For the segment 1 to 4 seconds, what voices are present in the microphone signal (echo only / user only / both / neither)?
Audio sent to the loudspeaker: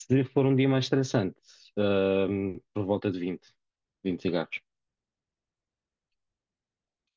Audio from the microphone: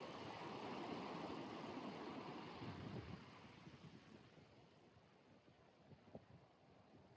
neither